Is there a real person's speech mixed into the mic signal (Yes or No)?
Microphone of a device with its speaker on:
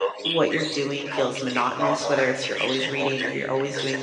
Yes